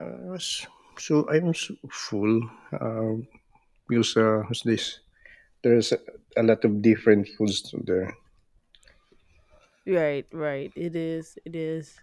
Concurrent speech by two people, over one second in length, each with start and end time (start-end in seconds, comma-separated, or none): none